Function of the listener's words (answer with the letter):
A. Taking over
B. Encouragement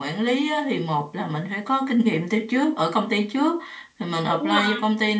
B